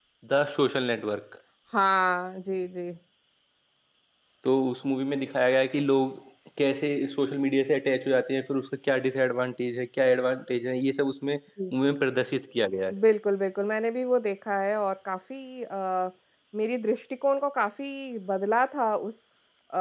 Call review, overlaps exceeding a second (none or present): none